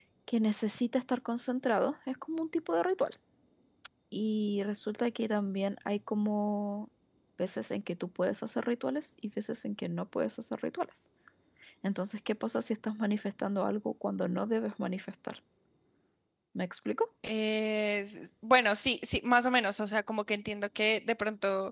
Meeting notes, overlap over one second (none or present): none